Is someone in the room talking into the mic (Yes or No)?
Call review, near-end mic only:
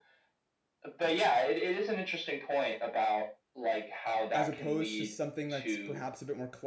Yes